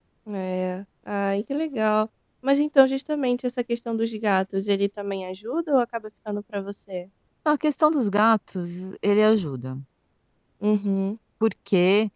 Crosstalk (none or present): none